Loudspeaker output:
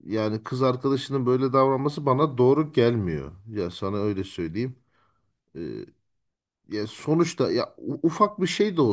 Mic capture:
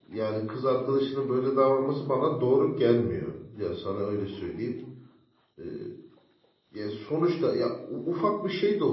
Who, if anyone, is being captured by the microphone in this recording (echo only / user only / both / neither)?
echo only